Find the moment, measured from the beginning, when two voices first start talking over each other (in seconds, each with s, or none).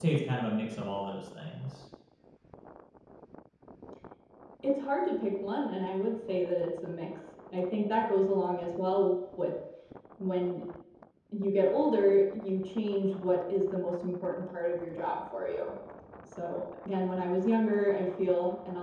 none